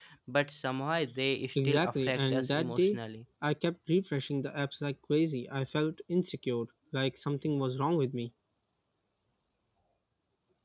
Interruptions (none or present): present